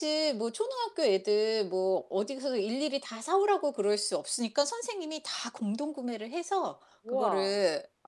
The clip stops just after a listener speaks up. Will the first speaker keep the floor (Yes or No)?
Yes